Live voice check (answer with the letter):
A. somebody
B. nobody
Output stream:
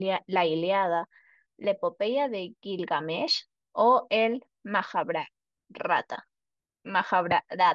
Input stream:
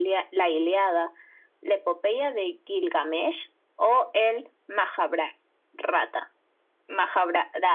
B